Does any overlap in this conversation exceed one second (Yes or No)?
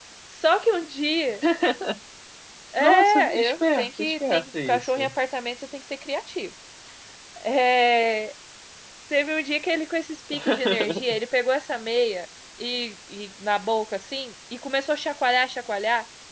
Yes